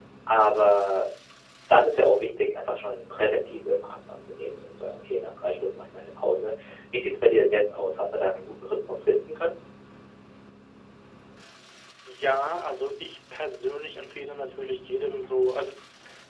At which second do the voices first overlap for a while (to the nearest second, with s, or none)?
none